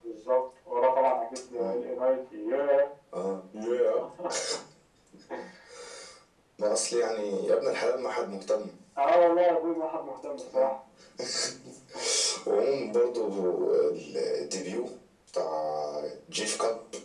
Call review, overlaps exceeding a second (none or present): none